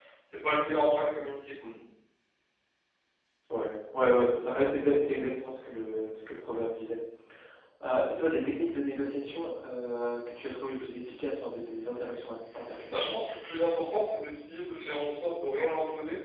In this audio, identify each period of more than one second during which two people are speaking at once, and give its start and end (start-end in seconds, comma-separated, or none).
none